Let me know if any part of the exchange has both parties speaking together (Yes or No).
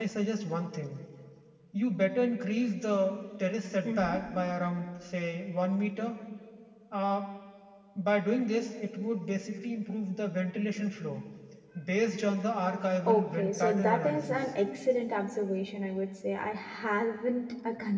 Yes